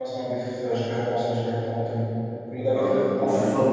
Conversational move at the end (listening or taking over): taking over